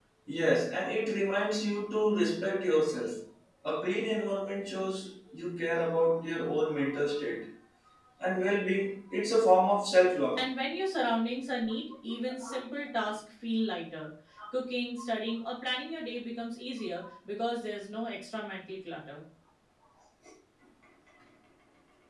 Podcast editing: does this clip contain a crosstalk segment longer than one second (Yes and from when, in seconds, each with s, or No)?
No